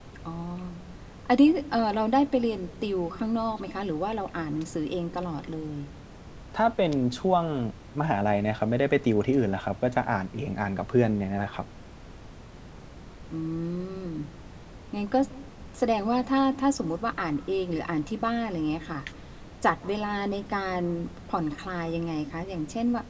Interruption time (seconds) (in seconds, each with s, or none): none